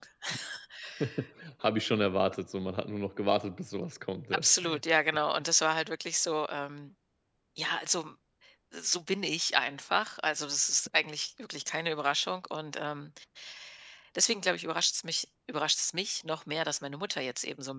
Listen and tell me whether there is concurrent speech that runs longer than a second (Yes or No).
No